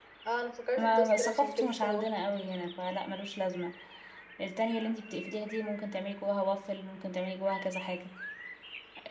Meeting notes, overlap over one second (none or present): present